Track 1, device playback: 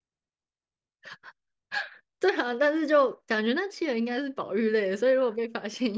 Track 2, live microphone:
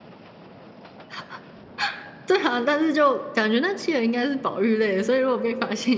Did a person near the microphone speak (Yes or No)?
No